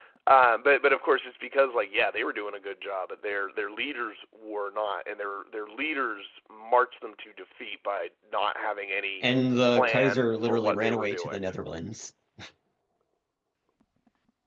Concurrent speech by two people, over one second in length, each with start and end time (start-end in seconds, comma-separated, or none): 9.7-11.4